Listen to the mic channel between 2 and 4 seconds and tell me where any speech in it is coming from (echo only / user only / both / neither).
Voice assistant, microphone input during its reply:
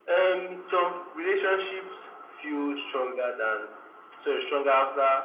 echo only